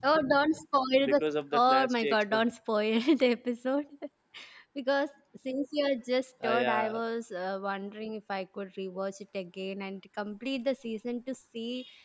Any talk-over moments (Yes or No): Yes